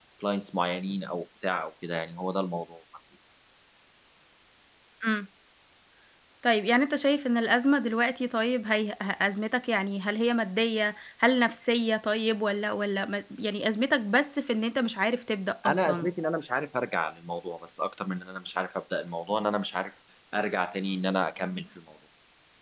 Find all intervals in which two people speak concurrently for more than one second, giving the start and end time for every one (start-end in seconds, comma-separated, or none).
none